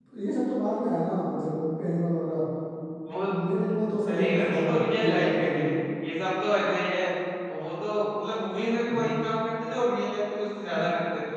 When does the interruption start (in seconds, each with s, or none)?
4.1 s